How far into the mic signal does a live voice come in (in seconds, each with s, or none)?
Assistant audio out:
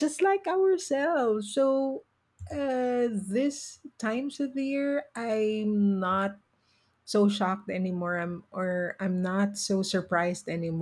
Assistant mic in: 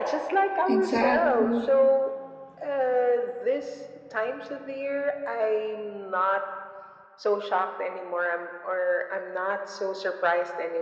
0.7 s